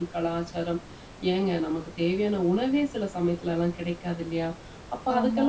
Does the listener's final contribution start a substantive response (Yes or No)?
No